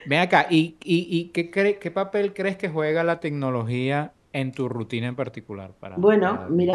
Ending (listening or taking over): taking over